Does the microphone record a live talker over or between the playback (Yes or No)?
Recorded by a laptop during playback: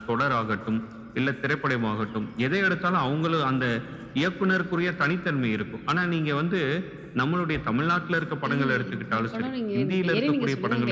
Yes